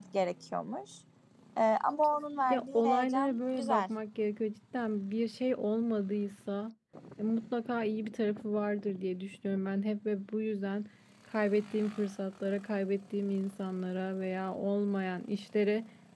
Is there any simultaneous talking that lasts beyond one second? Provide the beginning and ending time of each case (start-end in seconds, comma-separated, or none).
2.5-3.9